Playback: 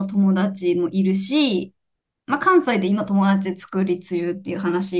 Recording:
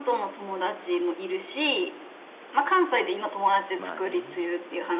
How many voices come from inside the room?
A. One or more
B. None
A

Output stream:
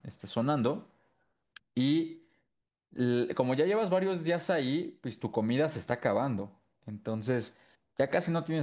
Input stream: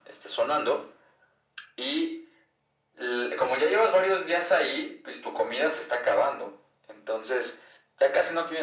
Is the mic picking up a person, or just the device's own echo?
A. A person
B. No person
B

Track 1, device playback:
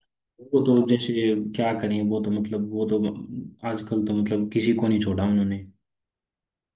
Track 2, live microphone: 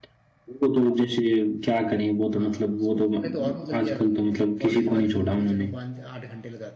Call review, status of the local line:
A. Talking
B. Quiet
A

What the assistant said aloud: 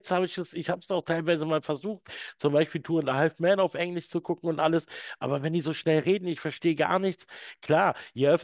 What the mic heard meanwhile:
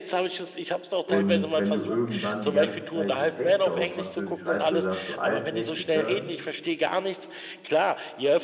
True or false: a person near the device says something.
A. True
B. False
A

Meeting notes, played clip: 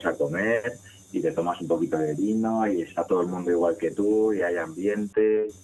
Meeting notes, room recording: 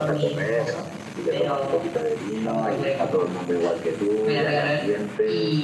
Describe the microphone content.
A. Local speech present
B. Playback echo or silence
A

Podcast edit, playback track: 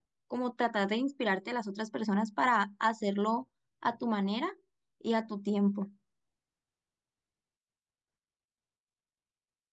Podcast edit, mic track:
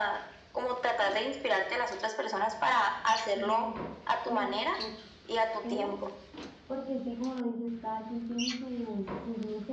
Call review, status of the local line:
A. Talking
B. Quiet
A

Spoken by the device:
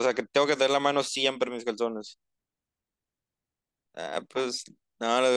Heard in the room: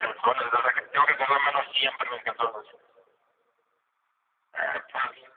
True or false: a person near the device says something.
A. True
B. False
B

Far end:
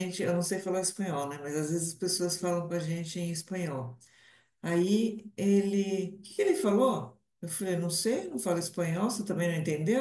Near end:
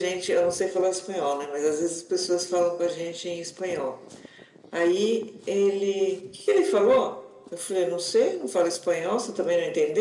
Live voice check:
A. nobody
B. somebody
A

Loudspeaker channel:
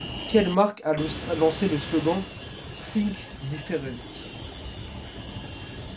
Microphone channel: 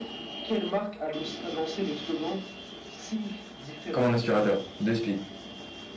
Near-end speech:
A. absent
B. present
B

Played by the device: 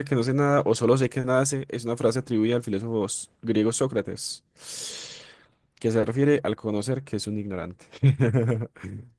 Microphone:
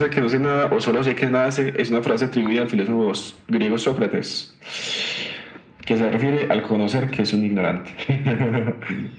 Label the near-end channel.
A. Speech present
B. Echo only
B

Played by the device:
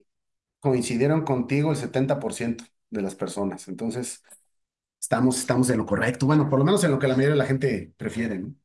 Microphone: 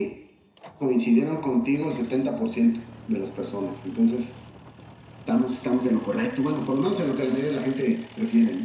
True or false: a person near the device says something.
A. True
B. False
B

